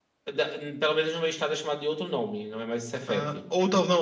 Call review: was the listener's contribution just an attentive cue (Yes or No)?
No